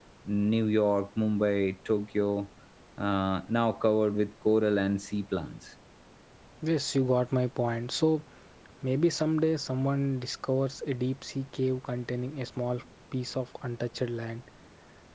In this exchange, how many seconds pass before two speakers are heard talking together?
none

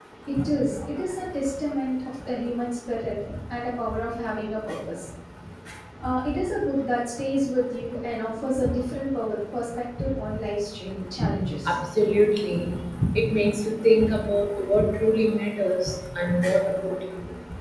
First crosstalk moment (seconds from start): none

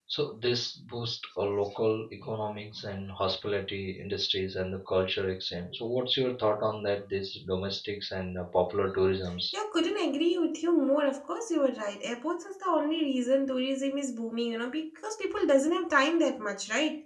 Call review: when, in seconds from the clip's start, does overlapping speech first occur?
none

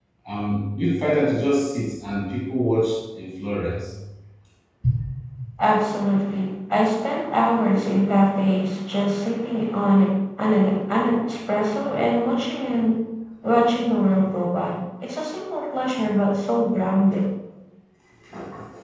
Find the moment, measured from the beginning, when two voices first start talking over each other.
none

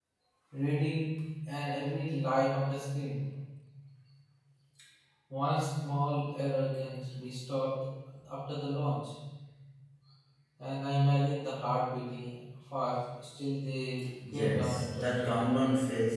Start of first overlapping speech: 14 s

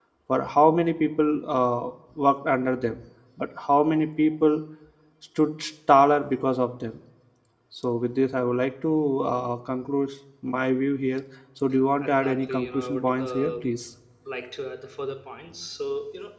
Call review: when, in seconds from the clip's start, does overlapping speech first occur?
12 s

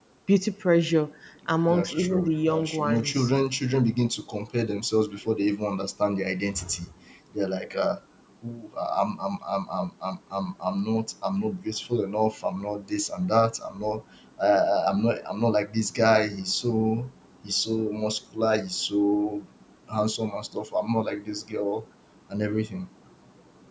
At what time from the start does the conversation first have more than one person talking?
2 s

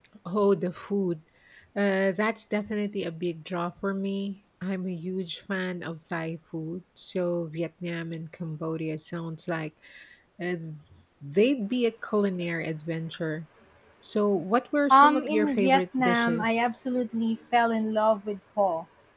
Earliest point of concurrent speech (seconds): 15 s

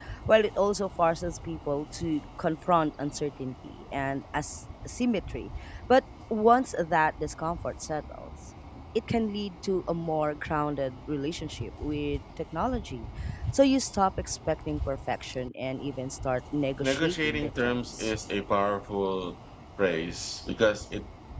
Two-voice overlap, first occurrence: 17 s

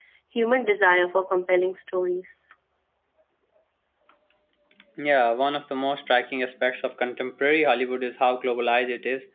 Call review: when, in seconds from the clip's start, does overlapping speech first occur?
none

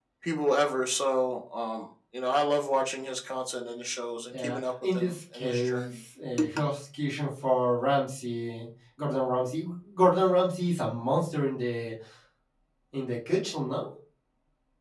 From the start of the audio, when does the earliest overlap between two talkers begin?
4 s

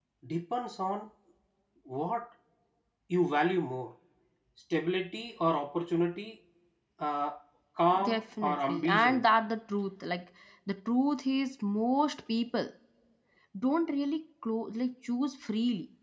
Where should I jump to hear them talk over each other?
8 s

